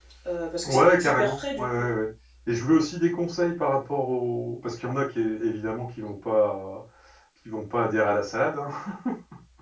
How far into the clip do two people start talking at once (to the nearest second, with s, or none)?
1 s